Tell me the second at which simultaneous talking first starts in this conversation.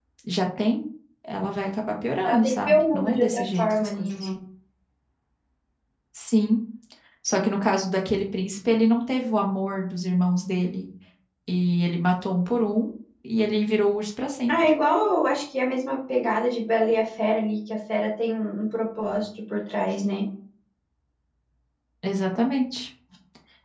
2.2 s

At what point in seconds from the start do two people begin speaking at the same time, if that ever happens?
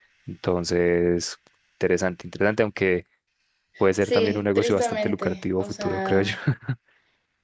4.0 s

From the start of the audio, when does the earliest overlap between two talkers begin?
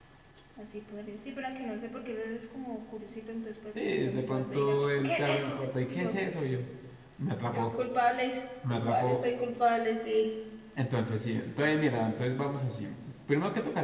3.8 s

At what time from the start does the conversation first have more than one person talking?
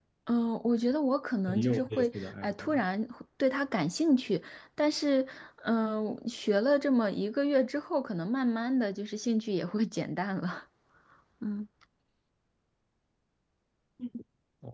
1.5 s

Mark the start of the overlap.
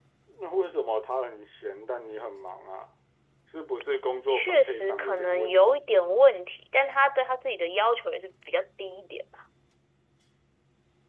3.9 s

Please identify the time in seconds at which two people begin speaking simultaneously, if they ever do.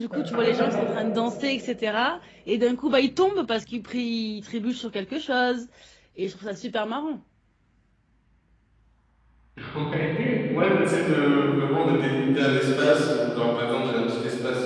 none

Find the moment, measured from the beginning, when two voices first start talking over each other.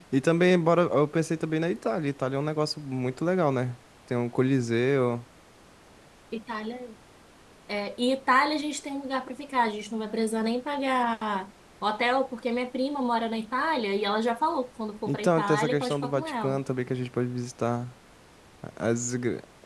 15.1 s

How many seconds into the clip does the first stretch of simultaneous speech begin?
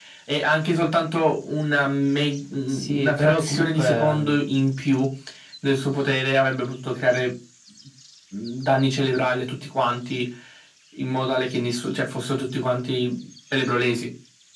2.7 s

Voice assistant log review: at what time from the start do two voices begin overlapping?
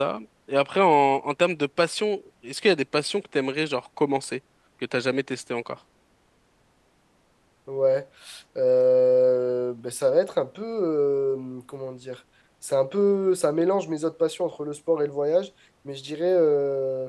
none

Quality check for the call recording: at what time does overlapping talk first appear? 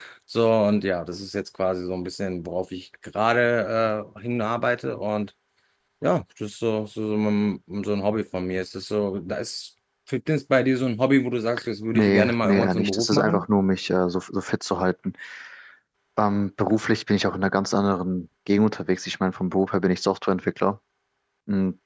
11.9 s

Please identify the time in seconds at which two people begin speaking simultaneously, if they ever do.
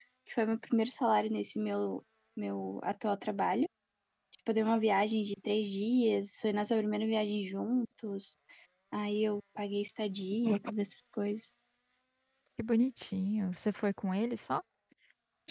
none

